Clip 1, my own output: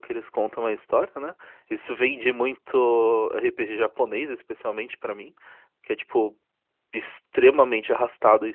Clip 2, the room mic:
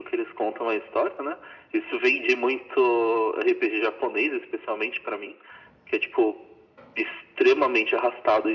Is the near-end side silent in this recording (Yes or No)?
Yes